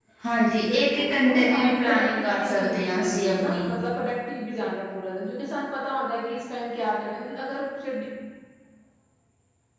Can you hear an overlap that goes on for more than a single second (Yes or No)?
Yes